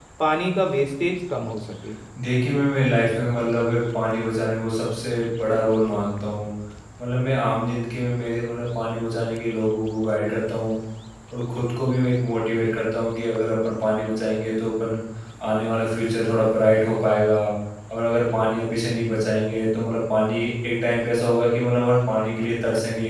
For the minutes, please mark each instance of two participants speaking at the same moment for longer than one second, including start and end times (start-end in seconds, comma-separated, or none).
none